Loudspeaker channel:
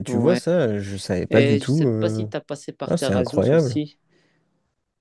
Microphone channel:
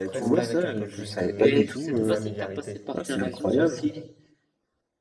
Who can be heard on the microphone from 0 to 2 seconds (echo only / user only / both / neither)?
both